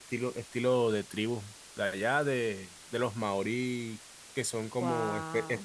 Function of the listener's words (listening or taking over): listening